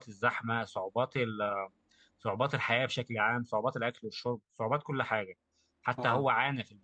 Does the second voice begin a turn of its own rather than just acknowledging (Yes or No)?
No